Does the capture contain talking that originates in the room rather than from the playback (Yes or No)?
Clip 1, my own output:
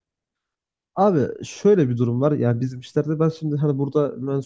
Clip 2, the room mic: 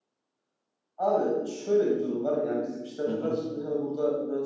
Yes